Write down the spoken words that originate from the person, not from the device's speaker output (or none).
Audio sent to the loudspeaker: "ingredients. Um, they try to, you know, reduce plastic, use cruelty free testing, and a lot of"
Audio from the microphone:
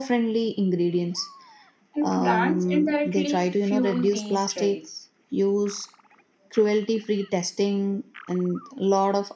And brands indirectly fuel these trends.